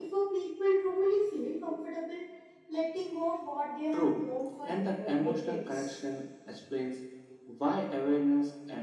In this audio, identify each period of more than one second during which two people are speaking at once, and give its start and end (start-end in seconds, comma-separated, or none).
4.6-6.0